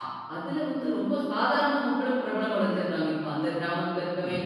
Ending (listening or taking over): listening